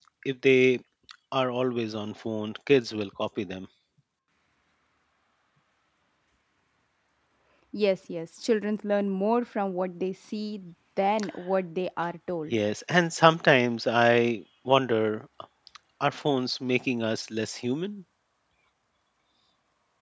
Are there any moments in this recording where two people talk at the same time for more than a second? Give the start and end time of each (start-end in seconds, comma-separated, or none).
none